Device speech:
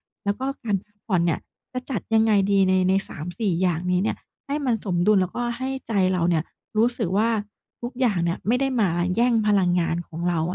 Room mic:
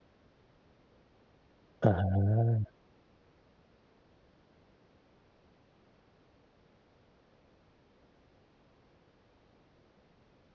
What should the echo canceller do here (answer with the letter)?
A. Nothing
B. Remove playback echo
A